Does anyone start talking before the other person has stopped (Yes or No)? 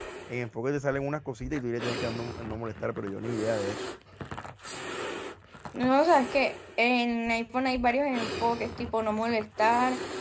No